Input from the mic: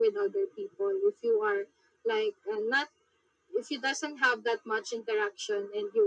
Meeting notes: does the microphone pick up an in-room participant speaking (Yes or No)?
No